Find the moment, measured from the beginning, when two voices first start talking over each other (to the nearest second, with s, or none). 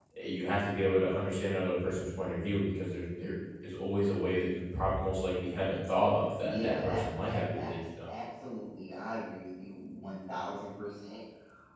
6 s